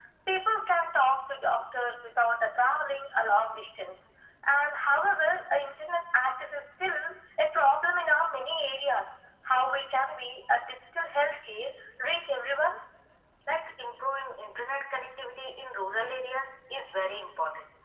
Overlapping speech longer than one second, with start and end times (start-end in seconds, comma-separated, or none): none